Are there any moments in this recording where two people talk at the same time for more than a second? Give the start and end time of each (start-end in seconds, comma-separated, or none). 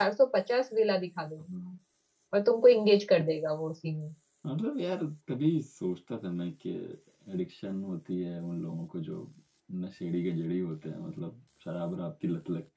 none